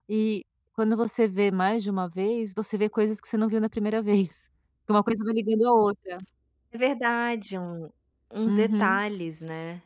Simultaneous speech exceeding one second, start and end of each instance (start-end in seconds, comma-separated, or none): none